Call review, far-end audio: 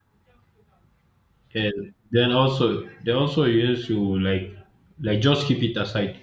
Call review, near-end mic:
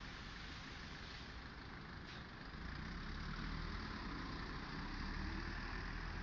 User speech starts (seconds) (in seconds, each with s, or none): none